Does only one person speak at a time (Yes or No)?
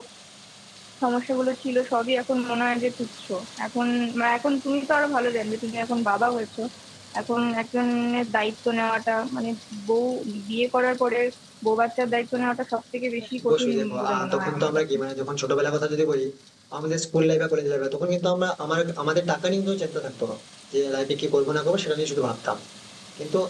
No